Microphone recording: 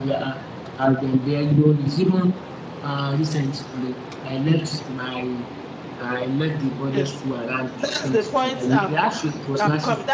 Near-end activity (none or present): present